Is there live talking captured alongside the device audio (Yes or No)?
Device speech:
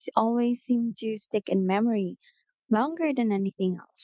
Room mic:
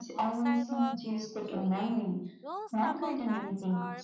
Yes